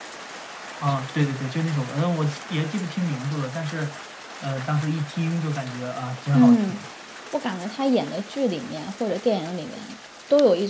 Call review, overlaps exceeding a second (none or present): none